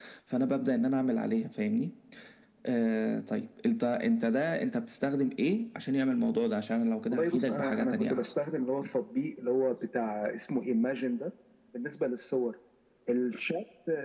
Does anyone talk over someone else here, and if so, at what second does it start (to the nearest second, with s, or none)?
7 s